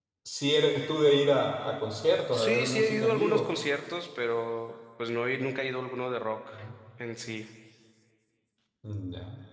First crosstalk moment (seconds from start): 2.3 s

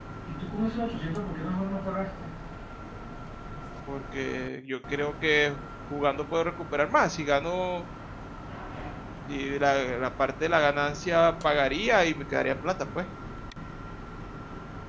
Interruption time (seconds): none

